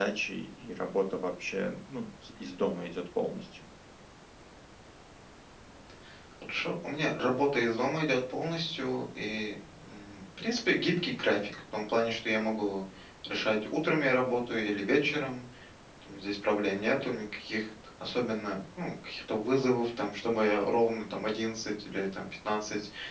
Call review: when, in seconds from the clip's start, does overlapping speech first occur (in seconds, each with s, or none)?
none